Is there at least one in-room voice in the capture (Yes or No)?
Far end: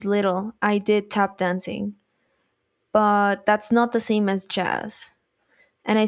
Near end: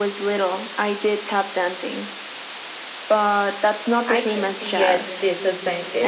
Yes